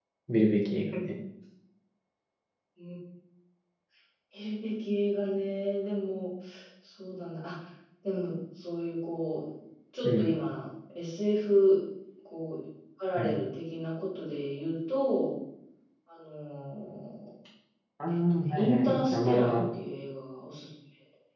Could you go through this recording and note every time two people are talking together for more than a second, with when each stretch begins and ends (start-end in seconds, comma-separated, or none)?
18.3-19.6